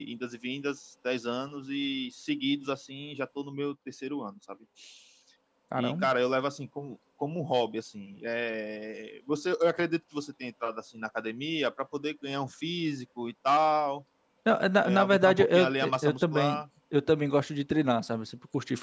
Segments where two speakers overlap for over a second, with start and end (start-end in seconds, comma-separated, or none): 14.8-16.6